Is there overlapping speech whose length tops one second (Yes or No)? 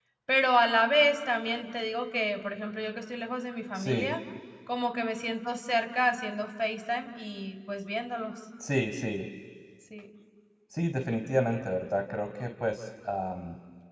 No